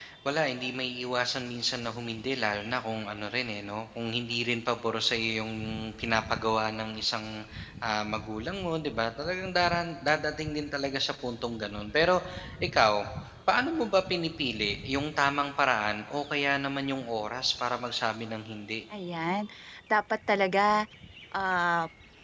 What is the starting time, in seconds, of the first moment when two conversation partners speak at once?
none

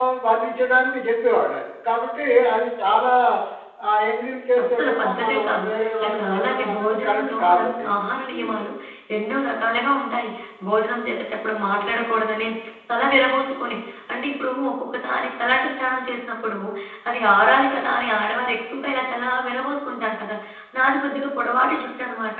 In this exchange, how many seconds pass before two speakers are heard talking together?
5 s

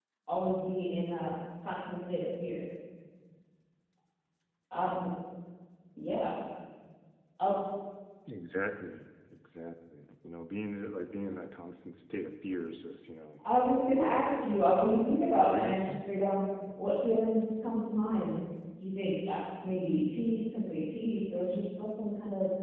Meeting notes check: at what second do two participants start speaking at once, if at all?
14 s

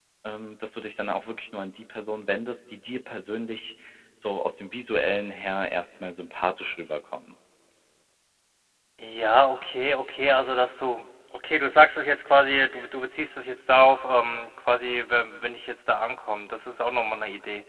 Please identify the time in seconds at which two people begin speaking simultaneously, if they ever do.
none

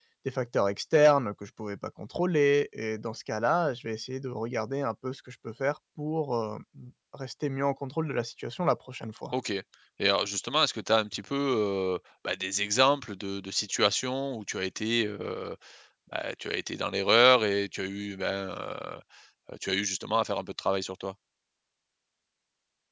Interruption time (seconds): none

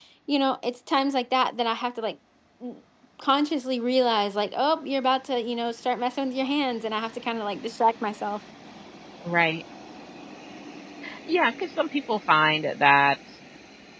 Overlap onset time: none

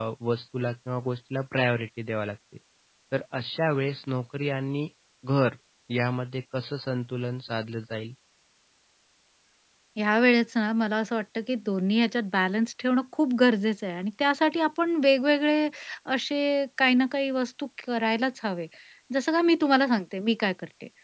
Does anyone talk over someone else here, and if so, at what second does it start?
none

